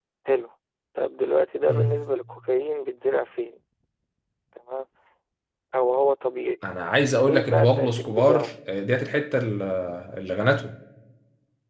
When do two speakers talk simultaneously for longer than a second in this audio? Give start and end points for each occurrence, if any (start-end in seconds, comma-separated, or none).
7.2-8.5